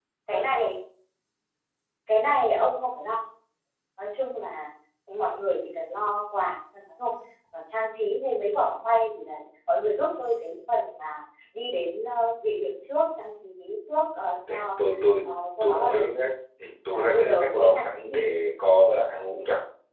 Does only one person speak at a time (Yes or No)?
No